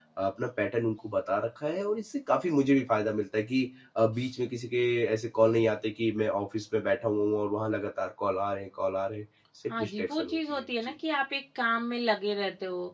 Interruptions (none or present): present